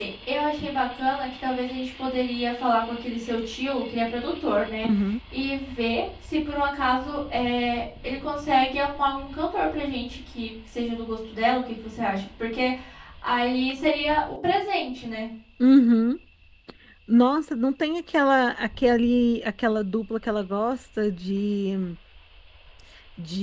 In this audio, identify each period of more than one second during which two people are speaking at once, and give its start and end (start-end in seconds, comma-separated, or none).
none